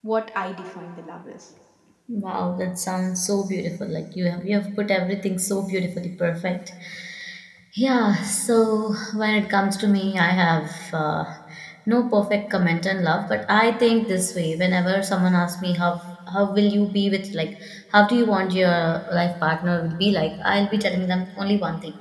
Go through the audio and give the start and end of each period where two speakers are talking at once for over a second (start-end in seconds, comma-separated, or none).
none